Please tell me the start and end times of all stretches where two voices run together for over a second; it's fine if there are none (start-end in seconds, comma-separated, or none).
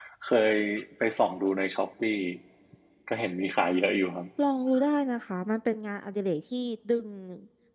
none